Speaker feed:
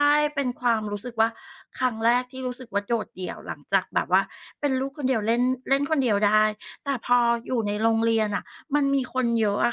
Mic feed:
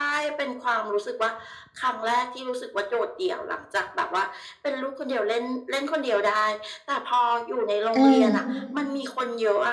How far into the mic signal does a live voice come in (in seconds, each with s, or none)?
8.0 s